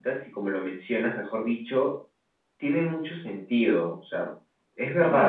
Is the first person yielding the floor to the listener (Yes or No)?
Yes